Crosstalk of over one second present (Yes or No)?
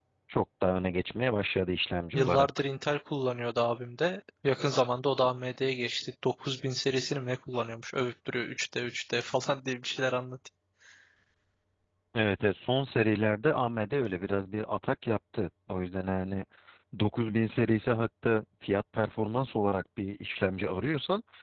No